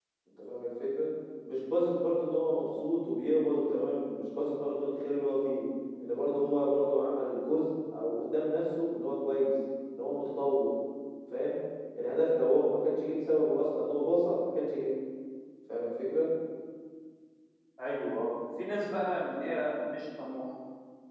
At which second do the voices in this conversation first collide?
none

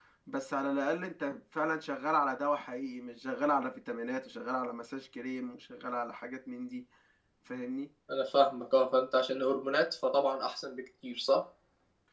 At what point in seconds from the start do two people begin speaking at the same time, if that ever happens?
none

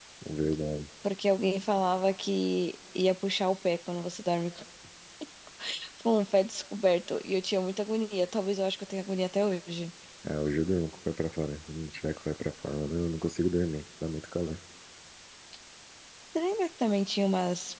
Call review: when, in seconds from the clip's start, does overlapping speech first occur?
none

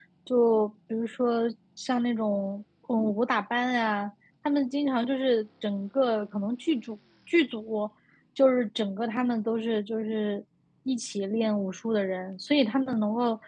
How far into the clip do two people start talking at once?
none

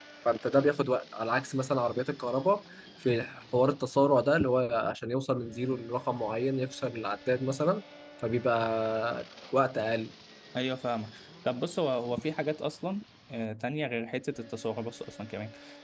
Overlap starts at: none

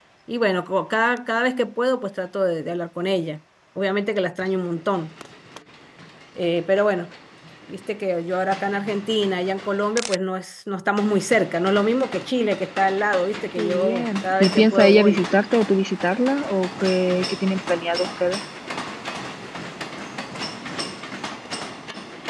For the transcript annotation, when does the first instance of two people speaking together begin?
13.5 s

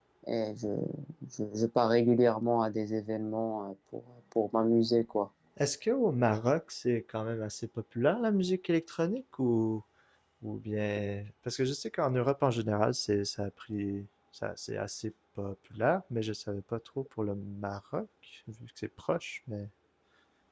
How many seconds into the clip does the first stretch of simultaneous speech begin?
none

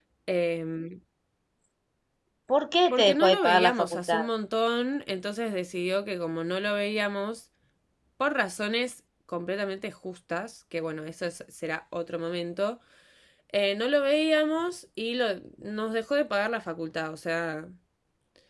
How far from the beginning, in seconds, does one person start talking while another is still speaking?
2.9 s

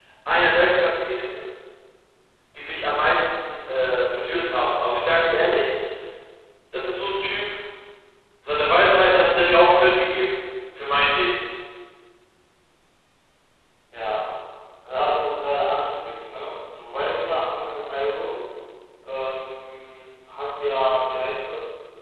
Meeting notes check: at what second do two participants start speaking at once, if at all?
none

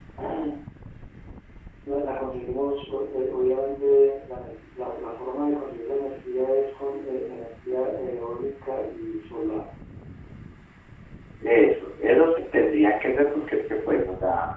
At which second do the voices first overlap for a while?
none

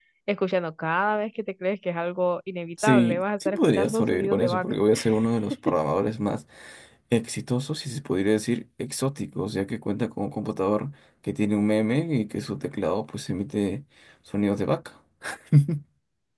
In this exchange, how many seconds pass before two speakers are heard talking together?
2.8 s

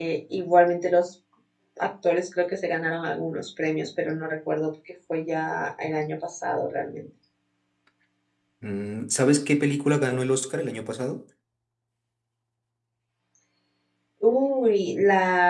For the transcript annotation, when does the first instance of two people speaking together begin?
none

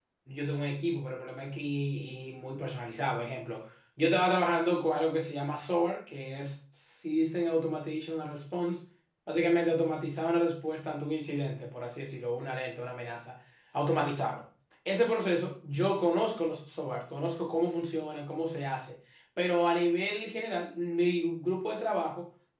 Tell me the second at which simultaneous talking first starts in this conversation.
none

